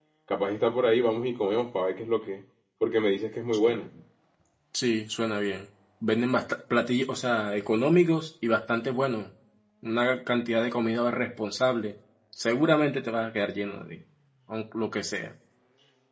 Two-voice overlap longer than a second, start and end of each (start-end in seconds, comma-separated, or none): none